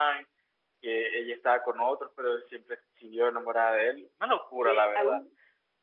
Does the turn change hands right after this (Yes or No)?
Yes